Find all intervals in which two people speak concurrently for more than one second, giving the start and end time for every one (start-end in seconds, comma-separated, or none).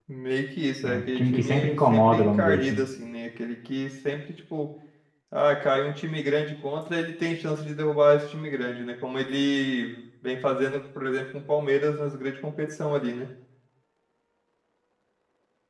0.8-2.8